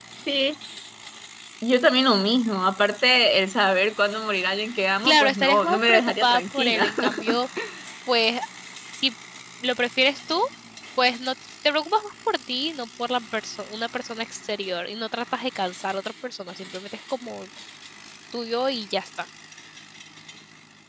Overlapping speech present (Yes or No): Yes